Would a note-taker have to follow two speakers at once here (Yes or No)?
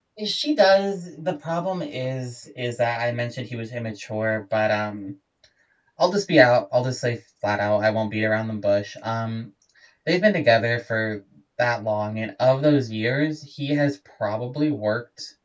No